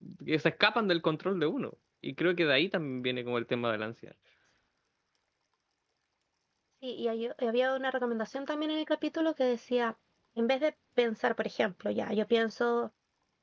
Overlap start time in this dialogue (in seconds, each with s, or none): none